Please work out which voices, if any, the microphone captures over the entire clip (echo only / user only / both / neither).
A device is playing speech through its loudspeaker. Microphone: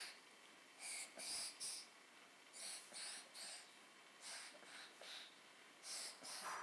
neither